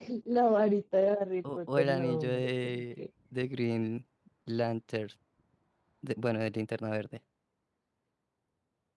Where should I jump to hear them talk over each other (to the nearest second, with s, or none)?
1 s